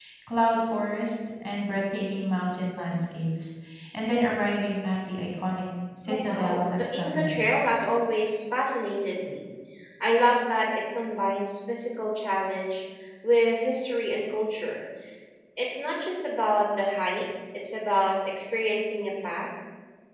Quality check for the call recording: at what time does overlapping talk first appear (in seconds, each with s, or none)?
6.0 s